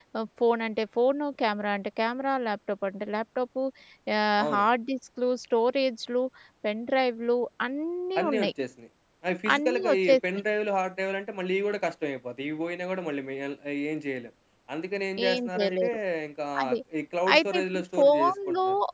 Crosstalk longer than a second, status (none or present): present